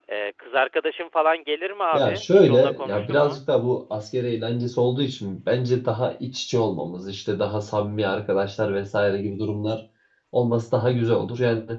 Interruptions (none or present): present